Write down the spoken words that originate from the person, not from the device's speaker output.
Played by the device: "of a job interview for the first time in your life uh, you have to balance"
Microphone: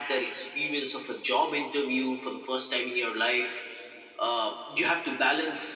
none

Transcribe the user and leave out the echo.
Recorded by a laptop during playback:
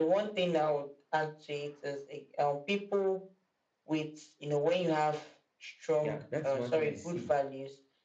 Yeah, that is one thing I see.

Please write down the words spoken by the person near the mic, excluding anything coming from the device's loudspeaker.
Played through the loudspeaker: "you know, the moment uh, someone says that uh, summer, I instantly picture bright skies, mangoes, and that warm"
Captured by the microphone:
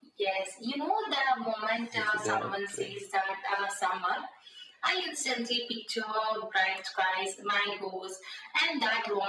beautiful day out today.

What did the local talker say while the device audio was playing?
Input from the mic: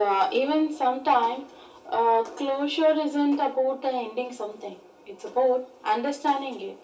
none

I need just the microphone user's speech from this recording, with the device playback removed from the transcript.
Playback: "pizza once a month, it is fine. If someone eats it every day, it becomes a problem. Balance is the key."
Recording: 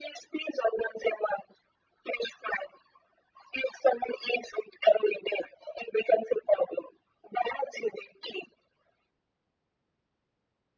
none

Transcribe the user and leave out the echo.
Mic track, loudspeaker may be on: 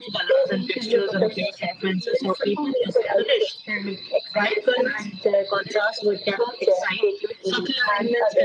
none

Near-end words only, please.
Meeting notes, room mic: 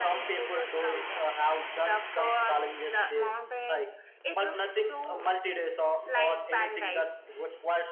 none

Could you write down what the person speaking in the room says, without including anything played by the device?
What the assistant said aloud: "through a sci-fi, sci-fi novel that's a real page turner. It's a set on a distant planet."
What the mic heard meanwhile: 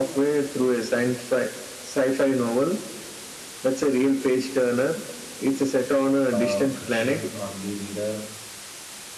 a fiction only reader

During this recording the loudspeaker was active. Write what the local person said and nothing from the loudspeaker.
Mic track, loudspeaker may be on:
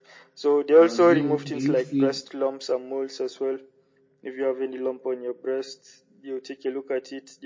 does you do you feel

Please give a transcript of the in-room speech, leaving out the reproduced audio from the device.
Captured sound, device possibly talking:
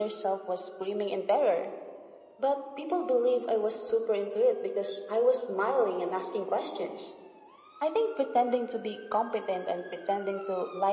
none

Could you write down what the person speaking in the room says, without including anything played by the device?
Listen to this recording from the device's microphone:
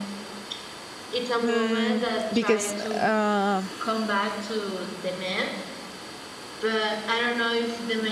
mm, because uh,

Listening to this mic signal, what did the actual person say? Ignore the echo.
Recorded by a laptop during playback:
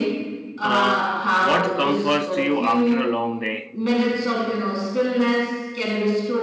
uh, what comforts you after a long day

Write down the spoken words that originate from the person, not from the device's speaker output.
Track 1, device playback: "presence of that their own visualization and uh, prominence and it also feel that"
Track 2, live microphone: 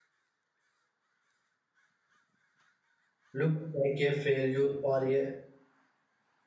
look like a failure or a

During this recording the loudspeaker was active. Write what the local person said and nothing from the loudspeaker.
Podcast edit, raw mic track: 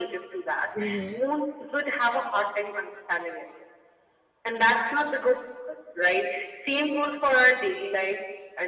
Mm-hmm.

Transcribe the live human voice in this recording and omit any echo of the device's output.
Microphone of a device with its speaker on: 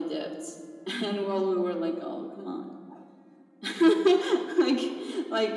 none

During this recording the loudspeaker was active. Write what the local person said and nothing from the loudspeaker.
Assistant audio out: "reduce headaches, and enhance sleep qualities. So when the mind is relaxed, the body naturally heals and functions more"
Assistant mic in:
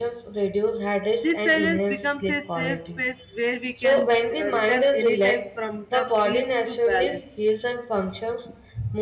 This silence becomes a safe space where we can uh, return anytime from the peace to balance.

